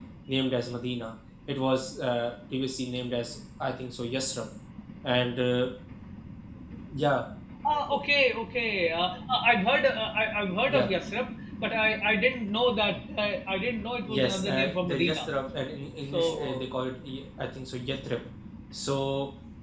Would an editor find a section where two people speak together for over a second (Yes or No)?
Yes